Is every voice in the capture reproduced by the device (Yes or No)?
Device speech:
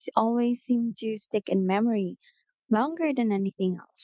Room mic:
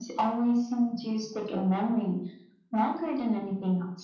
Yes